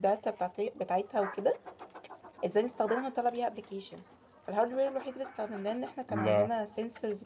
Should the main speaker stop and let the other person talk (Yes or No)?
No